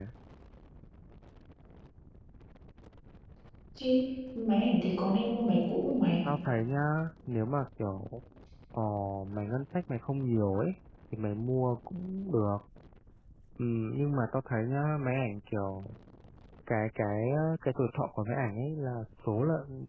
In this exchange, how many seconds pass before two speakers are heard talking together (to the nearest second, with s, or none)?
none